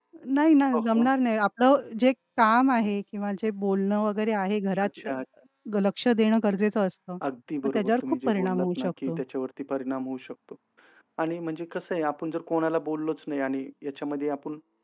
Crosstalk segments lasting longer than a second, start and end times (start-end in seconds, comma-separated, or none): 7.6-9.2